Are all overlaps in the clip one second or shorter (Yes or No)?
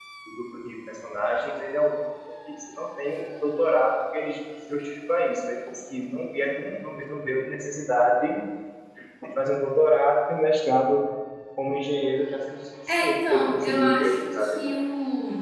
No